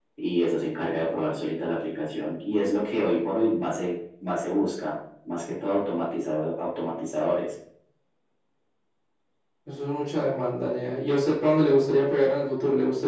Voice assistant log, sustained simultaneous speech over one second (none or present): none